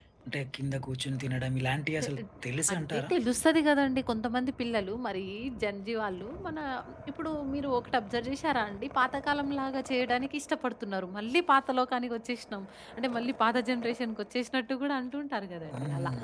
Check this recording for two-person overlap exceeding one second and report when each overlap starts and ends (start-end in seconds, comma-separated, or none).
none